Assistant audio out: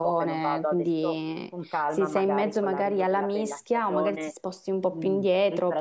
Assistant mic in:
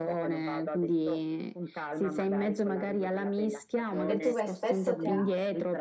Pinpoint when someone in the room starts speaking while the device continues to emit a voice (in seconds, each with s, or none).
4.0 s